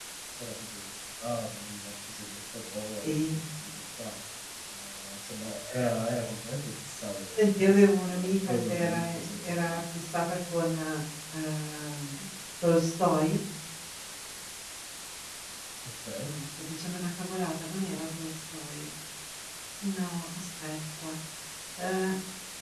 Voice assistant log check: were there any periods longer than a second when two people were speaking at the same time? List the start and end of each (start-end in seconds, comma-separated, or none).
7.4-9.8